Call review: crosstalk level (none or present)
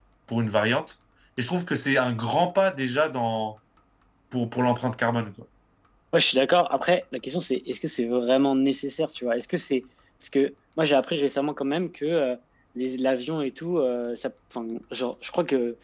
none